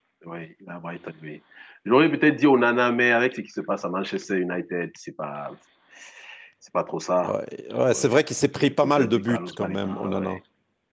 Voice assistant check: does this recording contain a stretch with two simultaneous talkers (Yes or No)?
Yes